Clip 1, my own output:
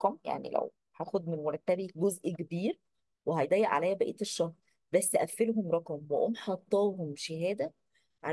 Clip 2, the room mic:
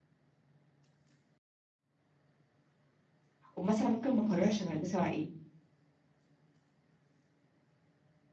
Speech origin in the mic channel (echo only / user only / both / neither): user only